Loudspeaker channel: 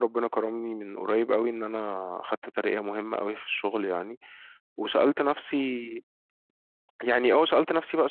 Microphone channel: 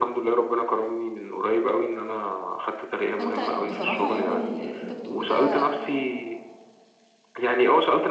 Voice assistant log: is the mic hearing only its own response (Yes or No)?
No